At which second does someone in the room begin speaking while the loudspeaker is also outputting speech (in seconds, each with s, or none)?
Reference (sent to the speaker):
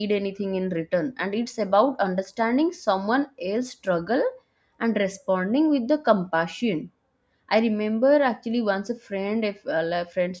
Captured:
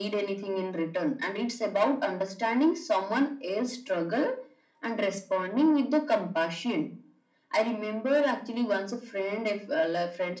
none